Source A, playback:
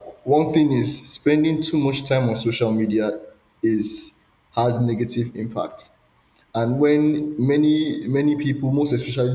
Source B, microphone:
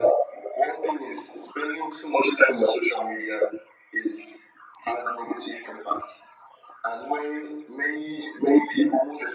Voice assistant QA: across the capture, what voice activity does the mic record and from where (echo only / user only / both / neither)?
echo only